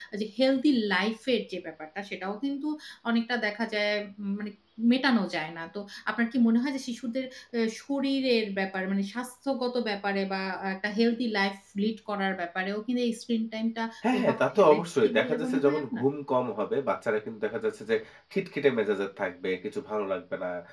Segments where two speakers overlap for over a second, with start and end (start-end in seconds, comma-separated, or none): 14.1-16.0